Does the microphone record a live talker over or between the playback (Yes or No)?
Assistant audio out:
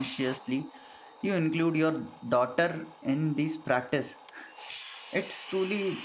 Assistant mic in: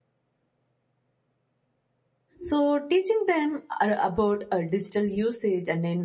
Yes